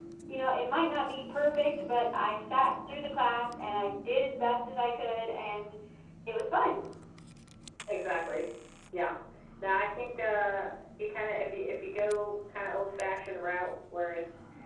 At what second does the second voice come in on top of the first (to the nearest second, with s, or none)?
none